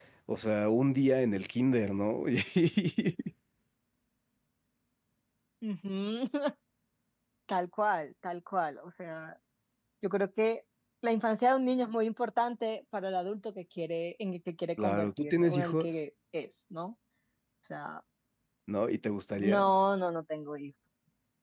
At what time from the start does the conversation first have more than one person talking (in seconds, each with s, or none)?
14.8 s